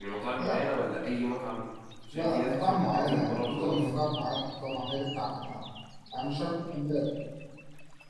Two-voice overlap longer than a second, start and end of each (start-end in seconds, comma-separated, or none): 2.1-3.9